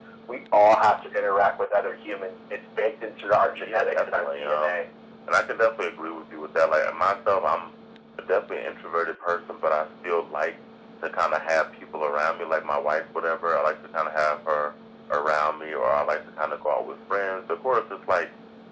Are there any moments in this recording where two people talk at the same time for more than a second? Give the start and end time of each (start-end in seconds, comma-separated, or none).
3.5-4.8